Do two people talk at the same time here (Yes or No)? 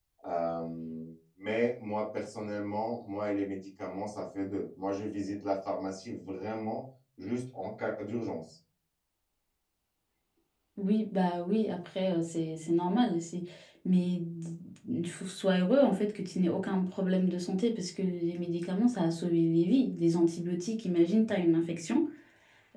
No